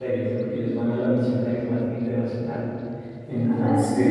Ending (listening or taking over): listening